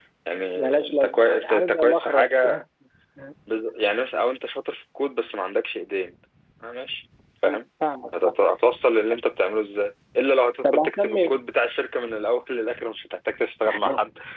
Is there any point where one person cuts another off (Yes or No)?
Yes